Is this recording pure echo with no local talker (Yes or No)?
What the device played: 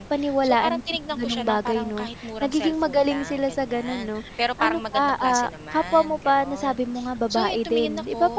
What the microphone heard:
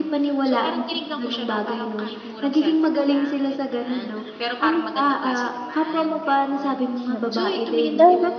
No